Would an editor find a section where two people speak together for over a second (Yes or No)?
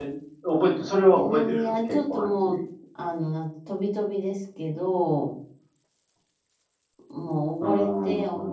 Yes